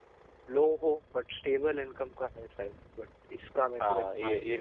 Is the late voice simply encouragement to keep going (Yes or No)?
No